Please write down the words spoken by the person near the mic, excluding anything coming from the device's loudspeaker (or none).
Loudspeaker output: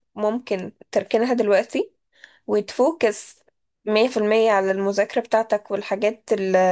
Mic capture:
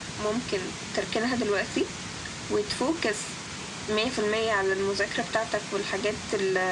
none